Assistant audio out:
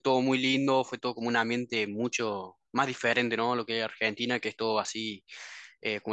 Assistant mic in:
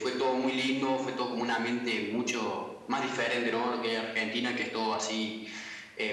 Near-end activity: none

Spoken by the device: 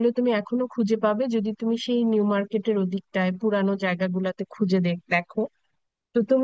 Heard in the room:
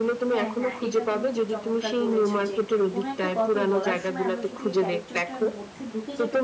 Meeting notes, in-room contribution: present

